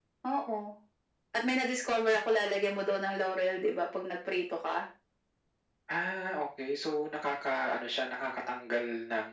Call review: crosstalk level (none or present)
none